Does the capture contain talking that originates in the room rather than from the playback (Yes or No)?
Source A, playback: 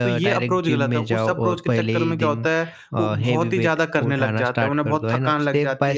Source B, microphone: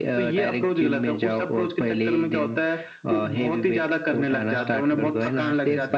Yes